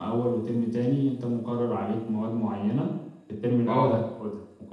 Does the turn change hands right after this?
No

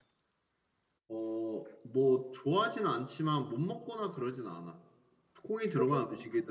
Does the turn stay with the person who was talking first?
Yes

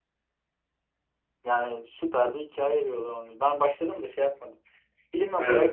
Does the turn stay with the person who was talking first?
No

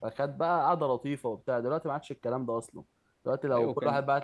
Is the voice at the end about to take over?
No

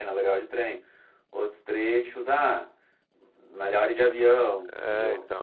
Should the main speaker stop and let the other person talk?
Yes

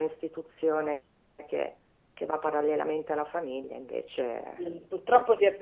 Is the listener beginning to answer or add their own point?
Yes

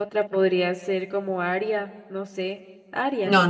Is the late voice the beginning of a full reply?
Yes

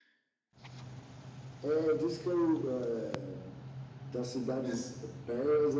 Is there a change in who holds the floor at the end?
No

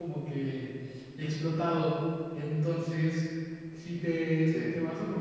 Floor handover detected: No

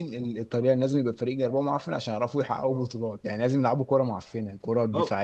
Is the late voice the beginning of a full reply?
Yes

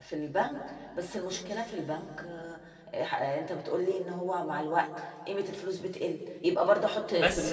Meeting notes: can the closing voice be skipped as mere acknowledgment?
No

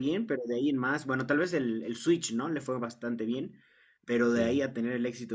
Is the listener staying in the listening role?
Yes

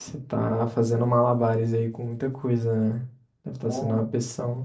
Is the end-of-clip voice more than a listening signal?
No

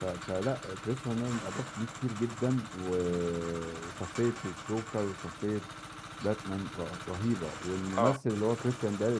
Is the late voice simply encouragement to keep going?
Yes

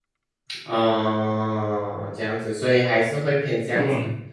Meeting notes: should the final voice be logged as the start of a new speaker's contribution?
No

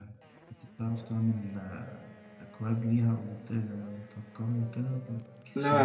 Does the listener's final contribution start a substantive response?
Yes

